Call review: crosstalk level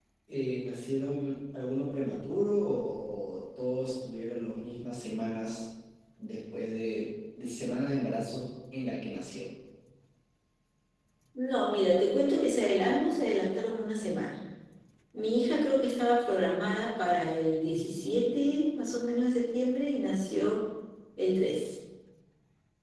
none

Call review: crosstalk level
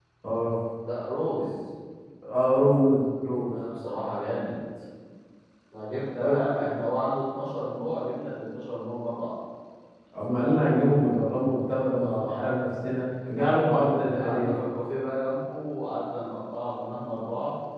present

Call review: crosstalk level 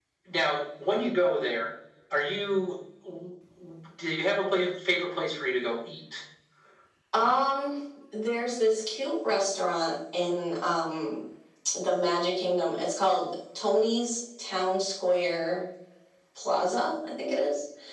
none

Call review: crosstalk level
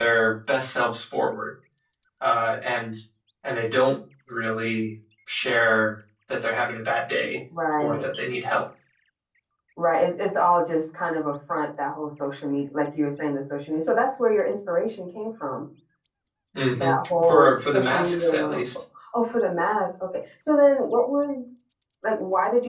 present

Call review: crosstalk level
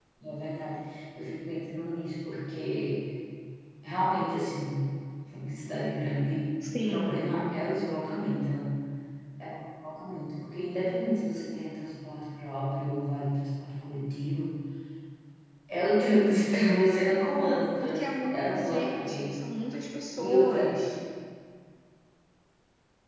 present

